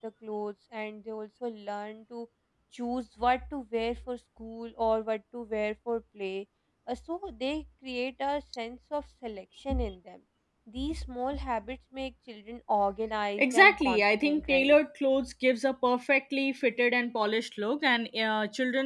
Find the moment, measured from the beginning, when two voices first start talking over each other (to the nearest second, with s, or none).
13 s